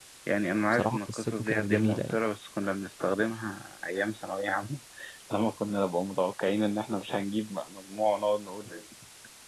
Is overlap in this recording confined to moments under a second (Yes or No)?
No